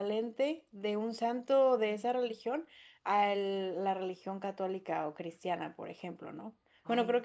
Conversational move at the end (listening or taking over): listening